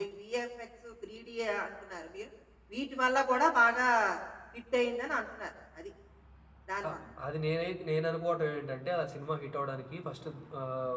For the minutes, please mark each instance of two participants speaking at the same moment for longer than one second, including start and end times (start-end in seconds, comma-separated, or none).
none